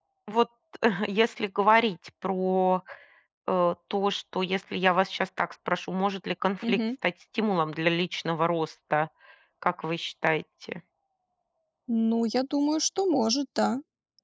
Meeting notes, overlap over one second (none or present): none